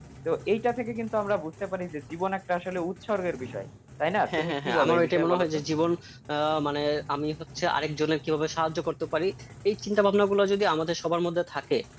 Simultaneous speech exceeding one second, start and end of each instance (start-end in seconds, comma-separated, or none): 4.3-5.6